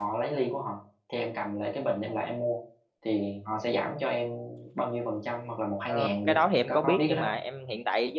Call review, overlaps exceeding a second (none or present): present